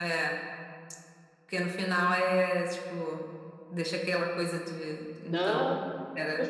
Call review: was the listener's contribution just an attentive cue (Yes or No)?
No